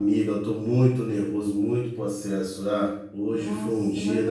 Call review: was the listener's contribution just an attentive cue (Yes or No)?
No